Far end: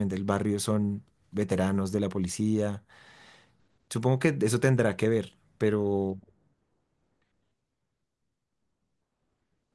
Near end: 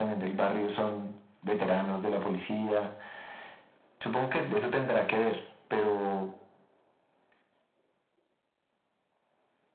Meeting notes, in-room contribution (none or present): none